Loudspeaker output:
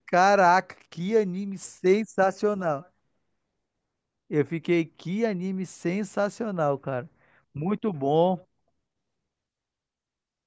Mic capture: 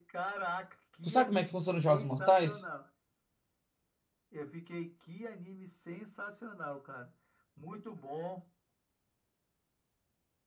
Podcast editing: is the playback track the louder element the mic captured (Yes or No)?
No